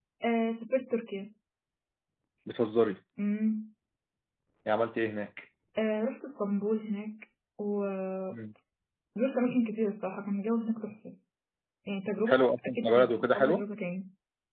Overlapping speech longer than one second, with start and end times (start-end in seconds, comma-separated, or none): 12.2-13.7